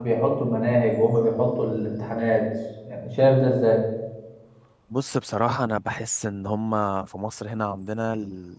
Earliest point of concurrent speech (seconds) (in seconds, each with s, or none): none